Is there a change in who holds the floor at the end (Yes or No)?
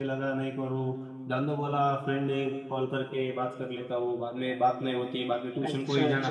Yes